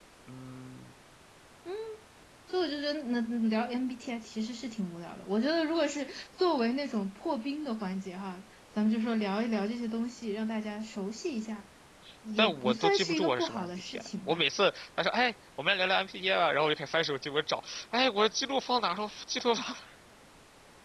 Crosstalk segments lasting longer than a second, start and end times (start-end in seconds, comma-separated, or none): 12.4-14.4